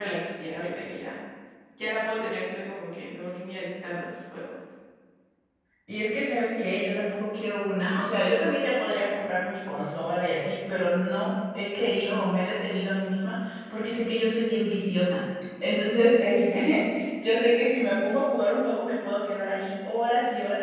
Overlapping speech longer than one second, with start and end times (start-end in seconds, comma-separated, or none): none